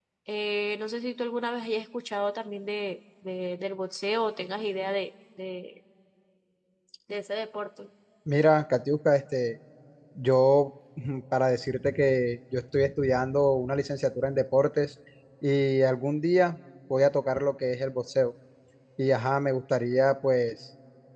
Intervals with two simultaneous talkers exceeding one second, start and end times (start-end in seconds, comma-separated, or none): none